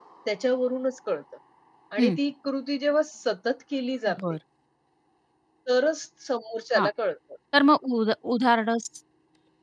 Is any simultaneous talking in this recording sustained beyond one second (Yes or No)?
No